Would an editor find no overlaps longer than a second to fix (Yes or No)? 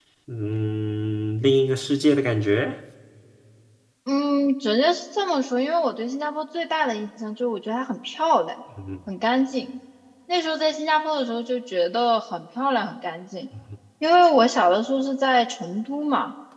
Yes